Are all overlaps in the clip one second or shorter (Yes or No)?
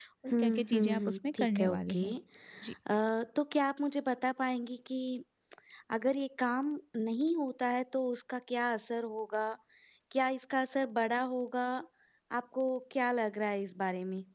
No